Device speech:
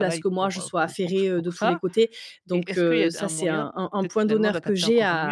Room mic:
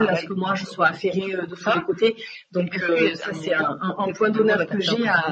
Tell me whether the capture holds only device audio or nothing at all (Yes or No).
Yes